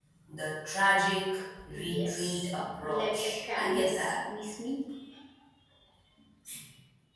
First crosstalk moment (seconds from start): 1.7 s

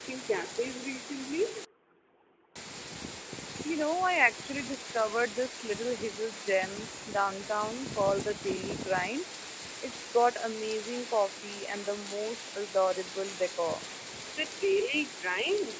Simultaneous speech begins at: none

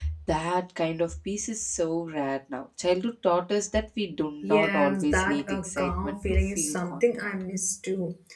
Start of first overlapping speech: 4.4 s

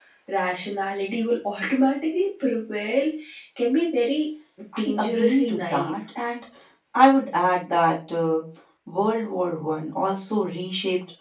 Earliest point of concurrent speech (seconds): 4.7 s

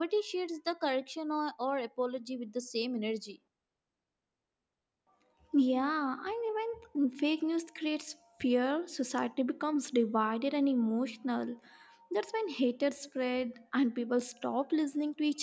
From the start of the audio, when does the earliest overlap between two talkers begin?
none

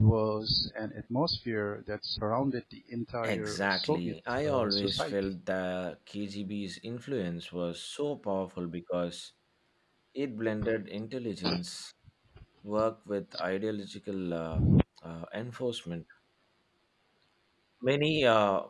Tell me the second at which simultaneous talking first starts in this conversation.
3.2 s

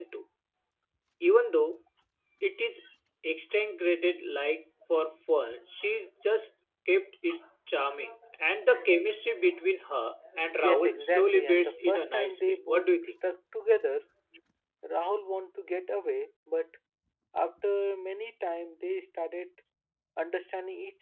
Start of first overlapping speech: 10.6 s

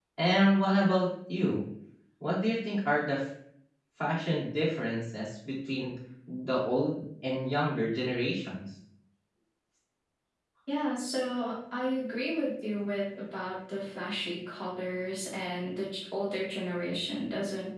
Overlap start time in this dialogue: none

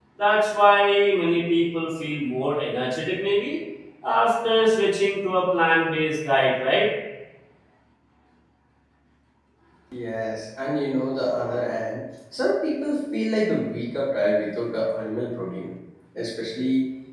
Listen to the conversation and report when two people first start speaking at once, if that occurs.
none

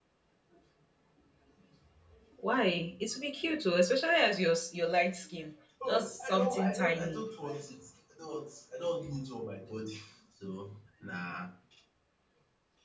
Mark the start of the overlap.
5.8 s

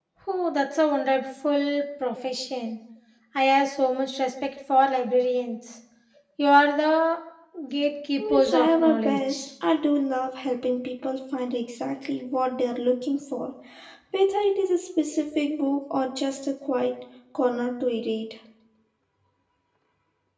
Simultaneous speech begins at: 8.2 s

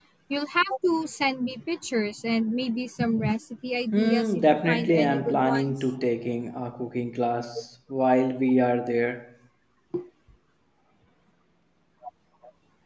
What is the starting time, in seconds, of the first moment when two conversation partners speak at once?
3.9 s

